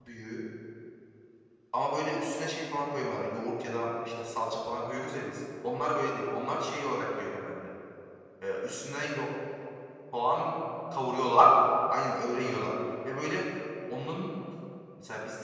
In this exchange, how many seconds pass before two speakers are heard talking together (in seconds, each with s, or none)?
none